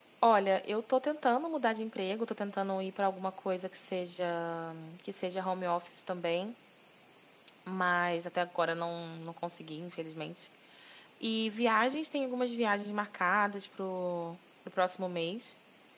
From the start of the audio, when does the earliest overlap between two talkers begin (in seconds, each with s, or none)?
none